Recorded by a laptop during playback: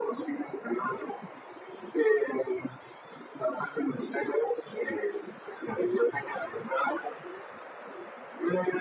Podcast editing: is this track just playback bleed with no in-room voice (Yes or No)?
Yes